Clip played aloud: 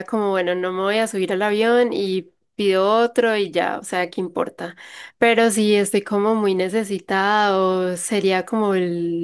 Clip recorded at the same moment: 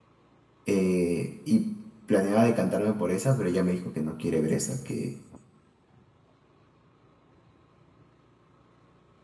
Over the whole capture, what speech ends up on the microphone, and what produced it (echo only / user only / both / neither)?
user only